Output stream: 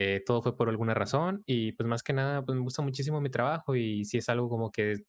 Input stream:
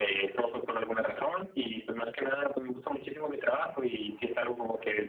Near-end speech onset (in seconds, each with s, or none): none